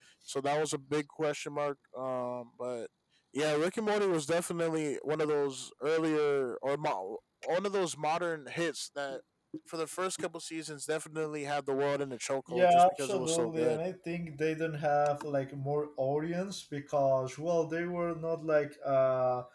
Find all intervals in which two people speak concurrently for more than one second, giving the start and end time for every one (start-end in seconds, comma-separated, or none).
12.5-13.8